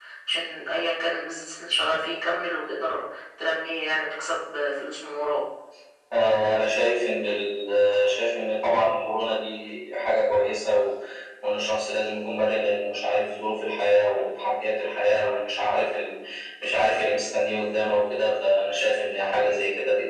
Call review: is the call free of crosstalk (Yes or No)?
Yes